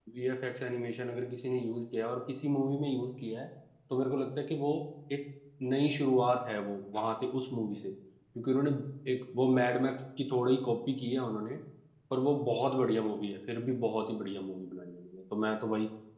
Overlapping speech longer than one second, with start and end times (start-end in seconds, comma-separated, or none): none